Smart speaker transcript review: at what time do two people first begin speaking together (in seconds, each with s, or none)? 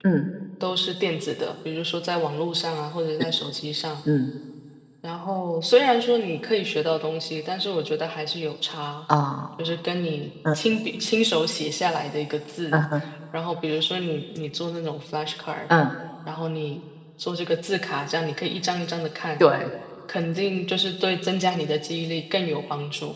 none